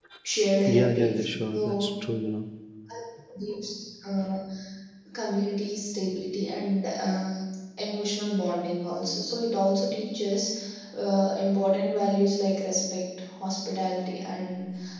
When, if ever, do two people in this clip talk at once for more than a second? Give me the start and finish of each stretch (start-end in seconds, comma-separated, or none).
0.7-1.9